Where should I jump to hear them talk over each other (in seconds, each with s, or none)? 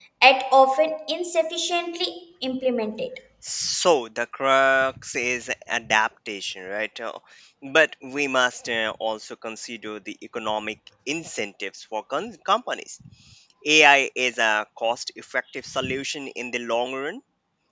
none